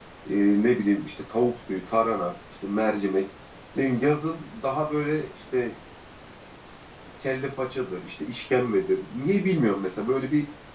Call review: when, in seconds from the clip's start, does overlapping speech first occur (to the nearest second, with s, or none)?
none